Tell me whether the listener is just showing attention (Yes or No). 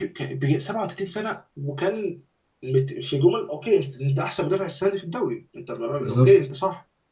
Yes